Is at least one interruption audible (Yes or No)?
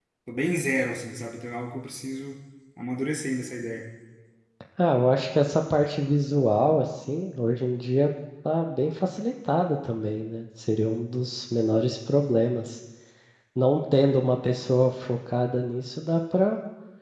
No